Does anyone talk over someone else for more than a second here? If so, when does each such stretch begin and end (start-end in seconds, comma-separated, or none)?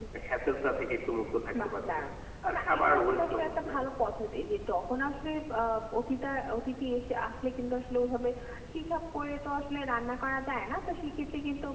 2.5-3.8